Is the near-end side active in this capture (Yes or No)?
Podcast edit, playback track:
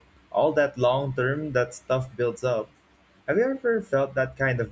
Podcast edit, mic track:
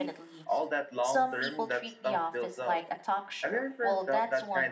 Yes